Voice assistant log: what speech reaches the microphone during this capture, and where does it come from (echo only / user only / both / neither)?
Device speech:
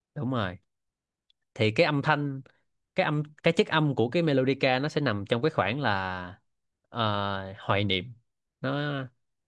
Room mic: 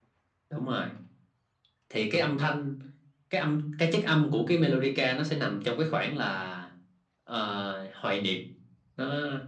echo only